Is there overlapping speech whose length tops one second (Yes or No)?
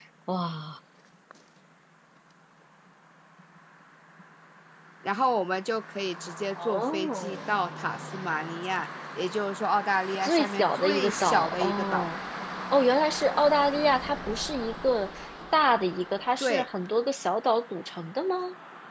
Yes